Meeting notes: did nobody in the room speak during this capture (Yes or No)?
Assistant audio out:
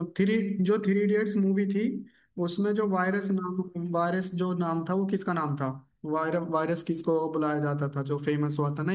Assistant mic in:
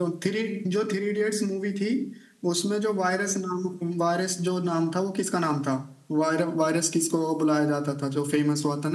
Yes